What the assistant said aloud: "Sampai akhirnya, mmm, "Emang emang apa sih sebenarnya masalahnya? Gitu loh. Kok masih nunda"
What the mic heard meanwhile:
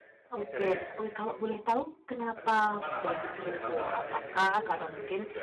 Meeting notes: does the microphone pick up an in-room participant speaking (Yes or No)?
Yes